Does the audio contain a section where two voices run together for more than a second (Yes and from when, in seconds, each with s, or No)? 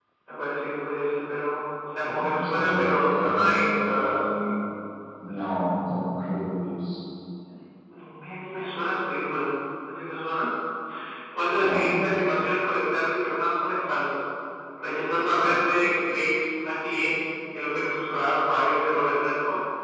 Yes, from 2.2 s